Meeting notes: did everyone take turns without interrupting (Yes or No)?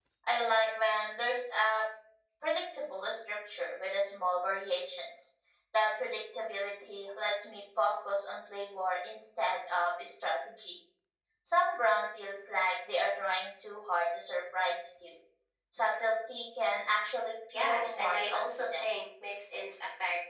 No